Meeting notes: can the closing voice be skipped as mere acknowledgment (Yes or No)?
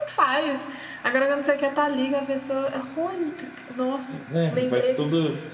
No